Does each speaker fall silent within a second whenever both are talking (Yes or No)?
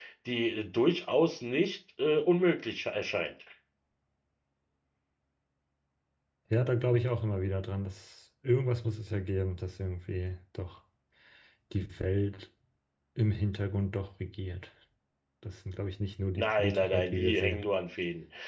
No